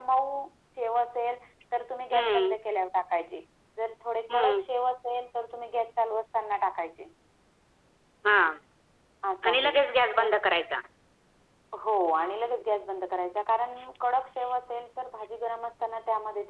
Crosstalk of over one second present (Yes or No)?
No